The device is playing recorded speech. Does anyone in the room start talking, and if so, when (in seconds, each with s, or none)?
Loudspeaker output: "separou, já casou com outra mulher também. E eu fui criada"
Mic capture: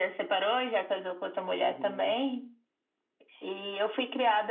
1.6 s